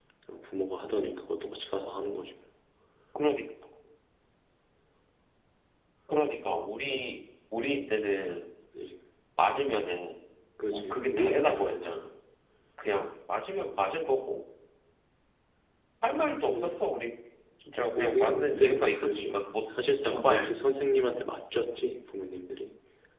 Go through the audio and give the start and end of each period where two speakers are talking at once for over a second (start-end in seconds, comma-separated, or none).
10.7-12.0, 18.0-19.4